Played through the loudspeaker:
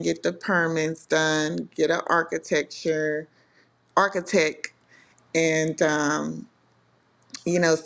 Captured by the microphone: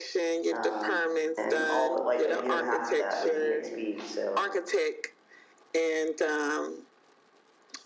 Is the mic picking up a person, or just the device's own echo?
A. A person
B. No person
A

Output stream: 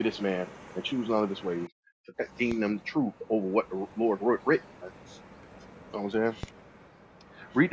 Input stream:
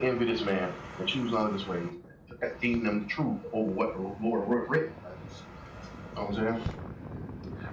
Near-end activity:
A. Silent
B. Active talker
A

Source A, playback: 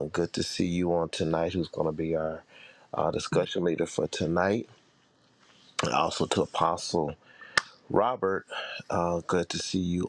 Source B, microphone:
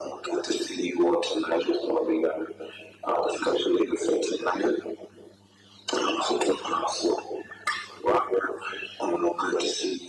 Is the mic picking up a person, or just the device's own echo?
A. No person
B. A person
A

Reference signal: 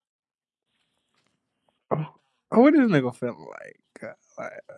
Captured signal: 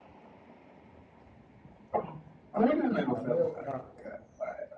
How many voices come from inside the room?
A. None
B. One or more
B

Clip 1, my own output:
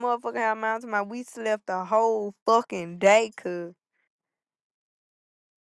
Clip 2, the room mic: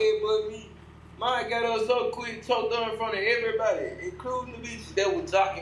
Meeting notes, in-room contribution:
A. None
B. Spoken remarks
B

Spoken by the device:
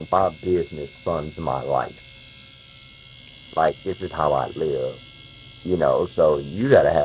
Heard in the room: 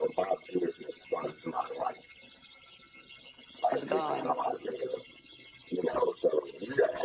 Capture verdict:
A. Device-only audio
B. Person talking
B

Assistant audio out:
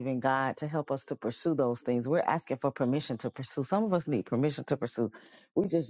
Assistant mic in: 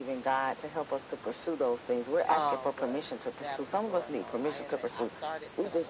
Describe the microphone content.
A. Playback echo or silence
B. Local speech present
B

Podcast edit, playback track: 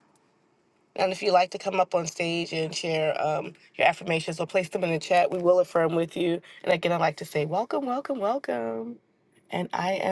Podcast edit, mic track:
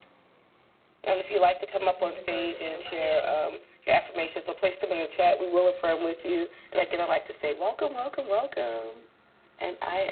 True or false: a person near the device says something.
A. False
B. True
B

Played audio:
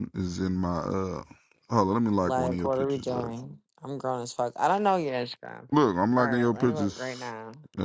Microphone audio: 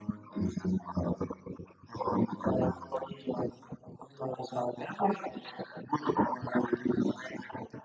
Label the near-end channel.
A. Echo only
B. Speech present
A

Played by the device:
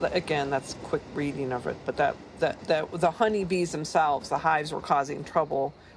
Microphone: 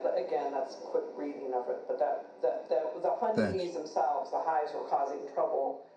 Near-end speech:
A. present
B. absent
A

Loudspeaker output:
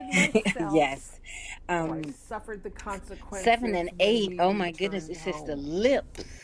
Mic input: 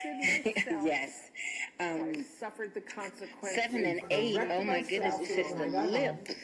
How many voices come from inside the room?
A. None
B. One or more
B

